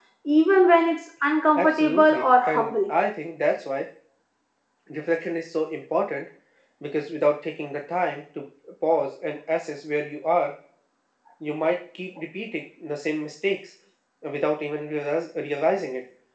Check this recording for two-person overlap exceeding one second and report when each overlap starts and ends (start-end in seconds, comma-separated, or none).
1.6-2.9